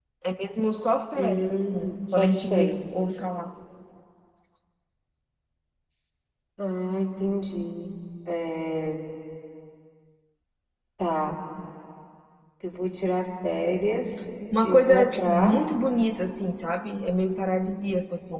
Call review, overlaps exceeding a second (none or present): present